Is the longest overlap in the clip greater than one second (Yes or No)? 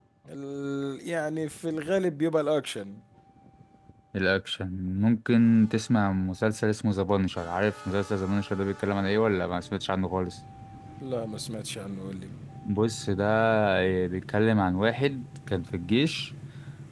No